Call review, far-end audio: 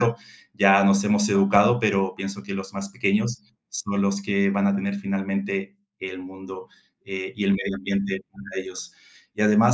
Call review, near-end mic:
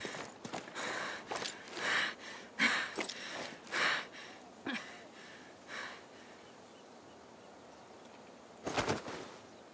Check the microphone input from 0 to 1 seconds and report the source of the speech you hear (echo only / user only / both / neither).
neither